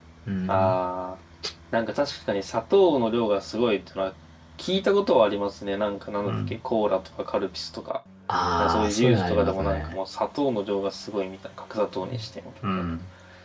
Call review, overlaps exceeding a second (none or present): present